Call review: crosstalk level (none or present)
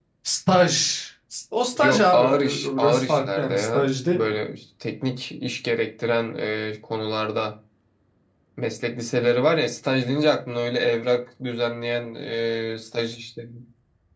present